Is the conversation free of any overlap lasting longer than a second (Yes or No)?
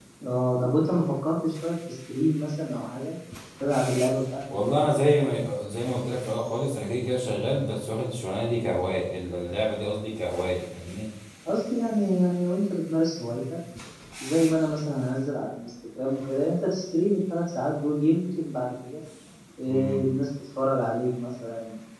Yes